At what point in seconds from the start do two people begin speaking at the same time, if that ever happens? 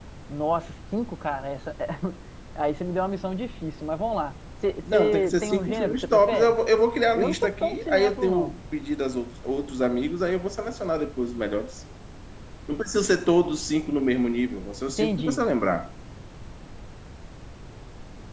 4.9 s

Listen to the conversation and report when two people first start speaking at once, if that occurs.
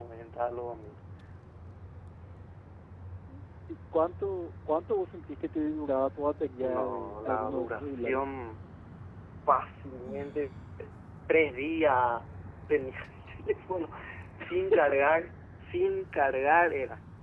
6.6 s

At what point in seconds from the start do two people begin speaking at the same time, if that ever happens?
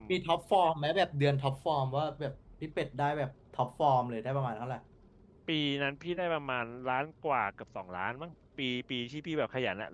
none

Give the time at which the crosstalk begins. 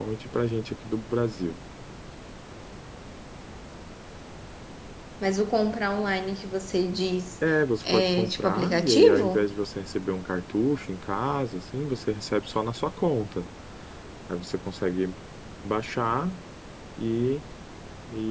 7.9 s

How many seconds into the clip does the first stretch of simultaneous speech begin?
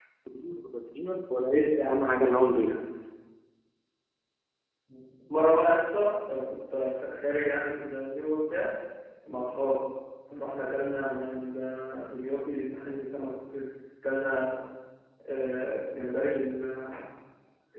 1.4 s

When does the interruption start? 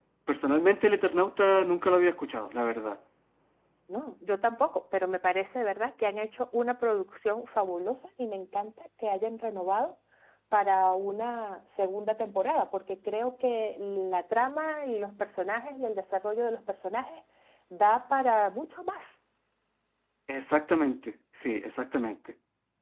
none

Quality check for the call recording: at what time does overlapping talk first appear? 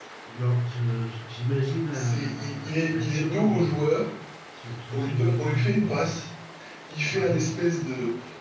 1.9 s

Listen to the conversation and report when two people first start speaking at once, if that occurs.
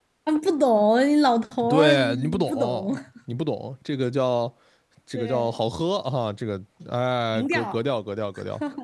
1.7 s

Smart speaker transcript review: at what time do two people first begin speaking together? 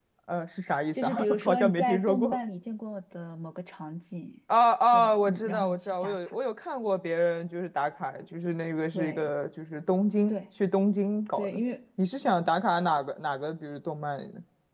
0.9 s

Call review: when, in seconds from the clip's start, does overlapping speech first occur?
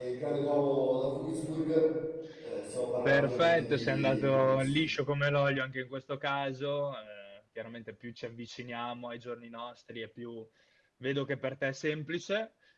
3.0 s

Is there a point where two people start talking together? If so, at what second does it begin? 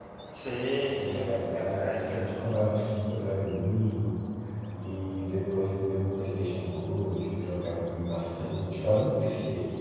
0.7 s

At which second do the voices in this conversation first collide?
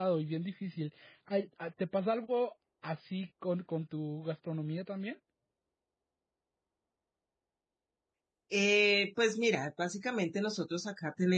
none

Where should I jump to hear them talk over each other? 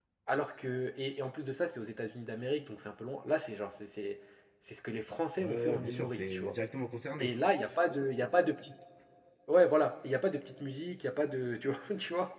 5.4 s

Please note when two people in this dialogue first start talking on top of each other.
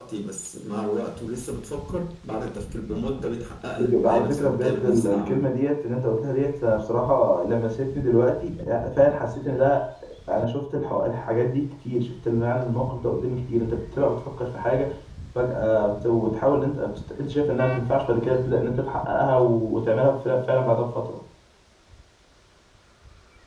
3.8 s

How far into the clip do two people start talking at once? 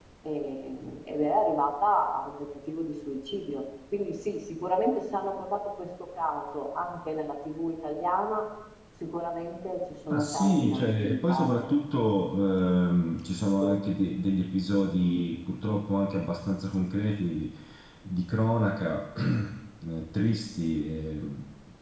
10.1 s

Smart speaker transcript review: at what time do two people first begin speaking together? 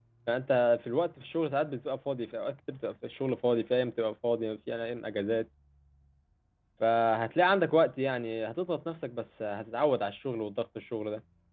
none

